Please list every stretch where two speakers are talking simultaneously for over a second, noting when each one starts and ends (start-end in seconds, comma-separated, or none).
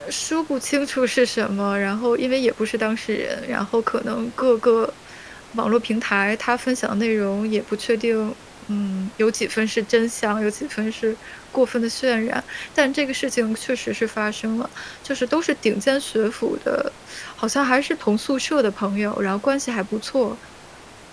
none